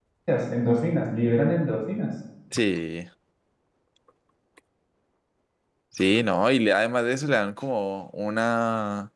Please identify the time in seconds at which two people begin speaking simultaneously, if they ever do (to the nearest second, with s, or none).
none